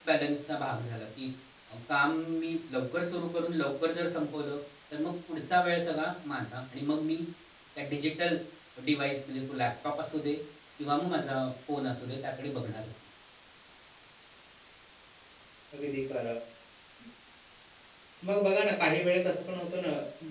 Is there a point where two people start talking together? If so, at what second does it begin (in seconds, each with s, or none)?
none